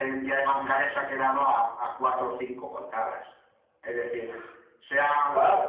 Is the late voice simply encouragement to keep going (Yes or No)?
Yes